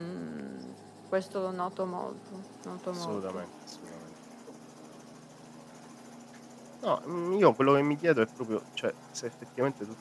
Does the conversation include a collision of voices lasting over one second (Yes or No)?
No